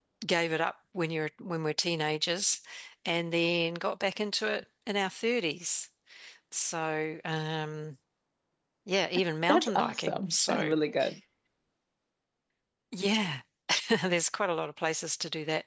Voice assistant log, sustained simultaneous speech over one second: present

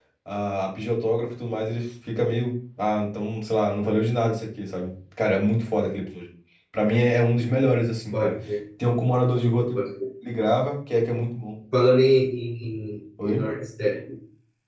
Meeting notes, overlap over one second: none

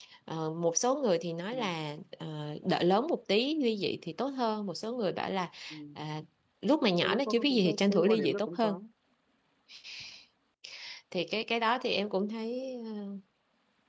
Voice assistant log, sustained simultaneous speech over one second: present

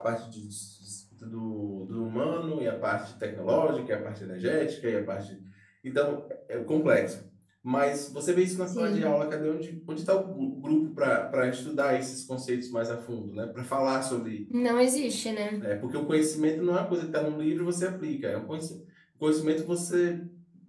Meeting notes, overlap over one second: none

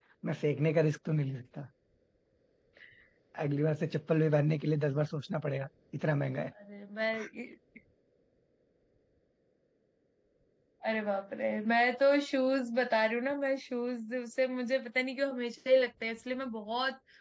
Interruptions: none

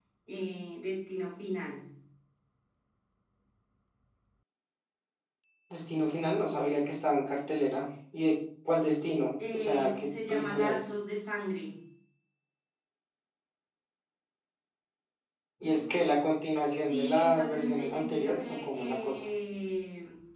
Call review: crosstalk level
present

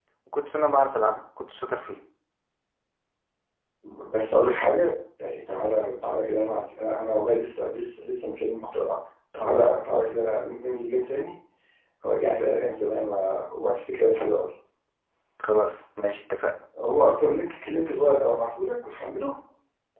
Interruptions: none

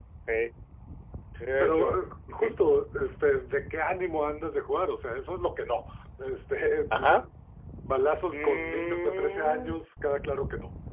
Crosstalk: present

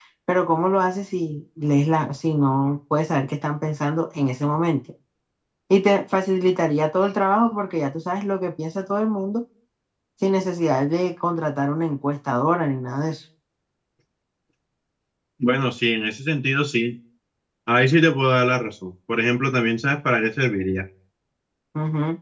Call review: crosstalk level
none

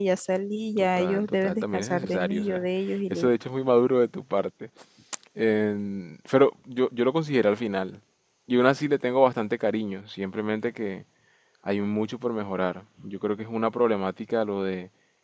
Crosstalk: present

